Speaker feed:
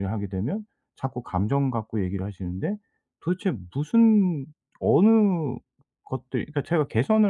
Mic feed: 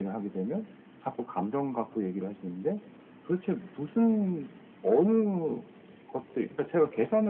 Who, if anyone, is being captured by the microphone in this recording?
echo only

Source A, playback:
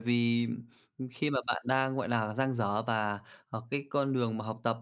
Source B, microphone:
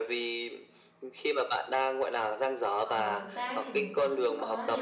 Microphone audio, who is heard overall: both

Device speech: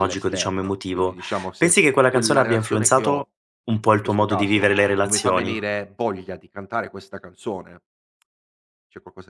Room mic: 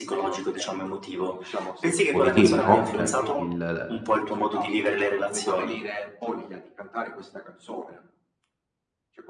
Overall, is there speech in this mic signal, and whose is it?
both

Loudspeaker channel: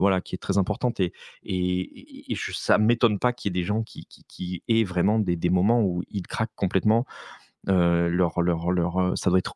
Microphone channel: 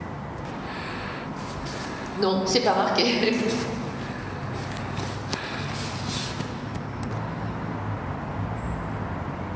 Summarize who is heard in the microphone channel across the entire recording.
user only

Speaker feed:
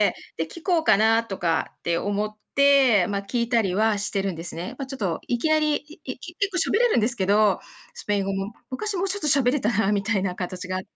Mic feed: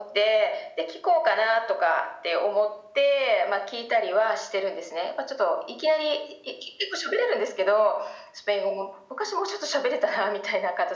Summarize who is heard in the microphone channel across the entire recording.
echo only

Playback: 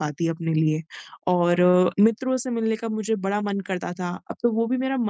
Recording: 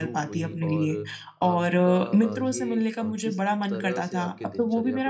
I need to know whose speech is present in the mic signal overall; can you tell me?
both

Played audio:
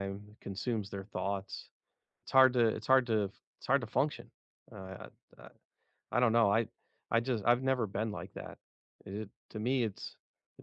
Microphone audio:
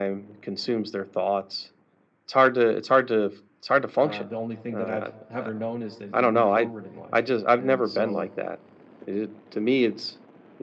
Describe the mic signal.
both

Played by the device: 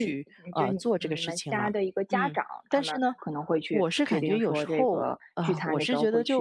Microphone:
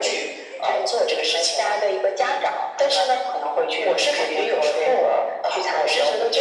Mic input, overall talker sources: echo only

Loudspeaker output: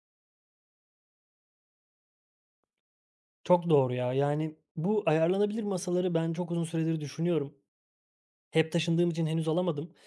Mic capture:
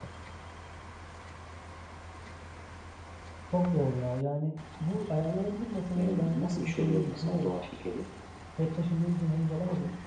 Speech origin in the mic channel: both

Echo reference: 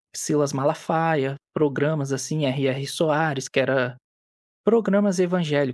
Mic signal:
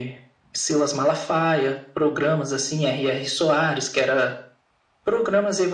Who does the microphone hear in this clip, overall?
echo only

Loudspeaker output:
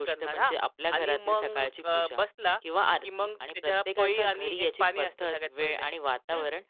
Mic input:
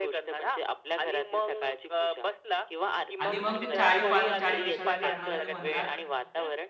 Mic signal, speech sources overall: both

